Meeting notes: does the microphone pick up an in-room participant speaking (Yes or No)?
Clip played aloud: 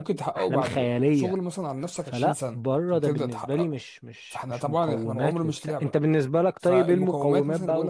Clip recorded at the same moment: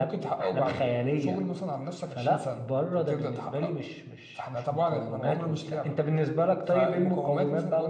No